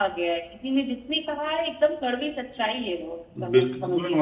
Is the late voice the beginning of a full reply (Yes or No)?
Yes